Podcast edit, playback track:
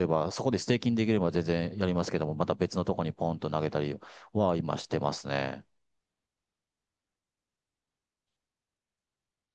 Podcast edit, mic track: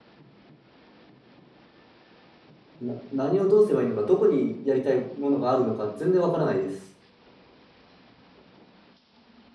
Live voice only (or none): な、何をどうすればいいのか、どこにやりたいものがあるのか、全然分からないです。